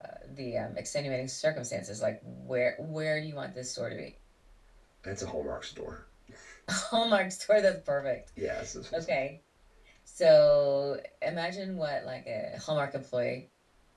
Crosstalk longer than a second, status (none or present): none